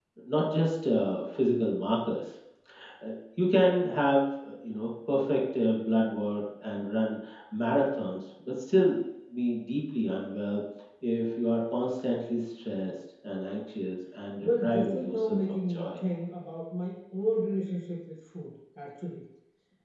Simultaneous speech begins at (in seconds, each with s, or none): 14.4 s